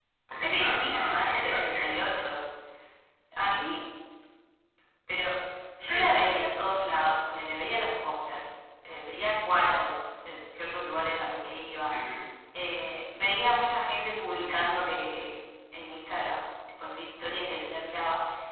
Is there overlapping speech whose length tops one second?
Yes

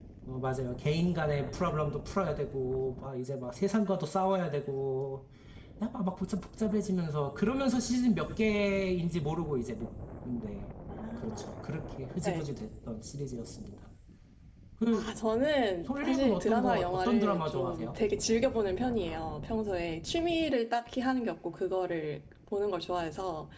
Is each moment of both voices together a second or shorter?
No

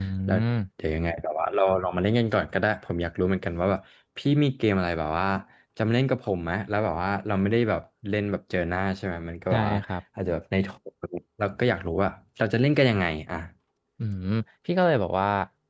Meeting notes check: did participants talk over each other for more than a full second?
No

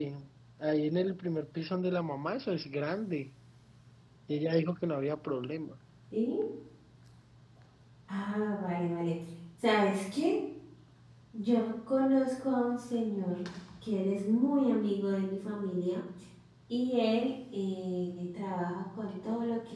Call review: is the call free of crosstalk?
Yes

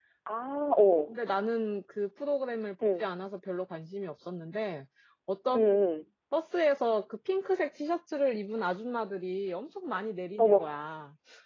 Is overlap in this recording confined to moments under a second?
Yes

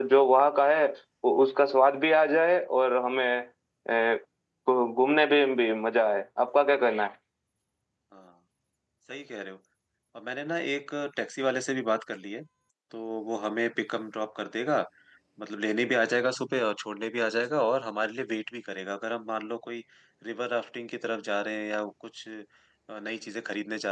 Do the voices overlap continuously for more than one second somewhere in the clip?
No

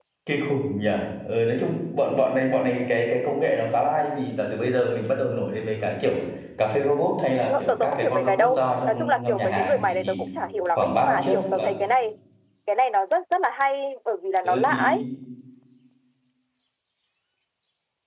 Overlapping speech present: Yes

